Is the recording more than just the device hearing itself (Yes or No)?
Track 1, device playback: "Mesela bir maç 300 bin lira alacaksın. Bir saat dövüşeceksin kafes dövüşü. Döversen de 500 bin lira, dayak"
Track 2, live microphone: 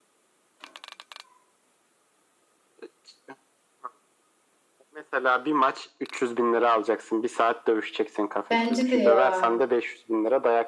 Yes